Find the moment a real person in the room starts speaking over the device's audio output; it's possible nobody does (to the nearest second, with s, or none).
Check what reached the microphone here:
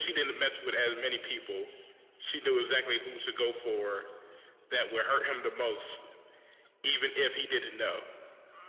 none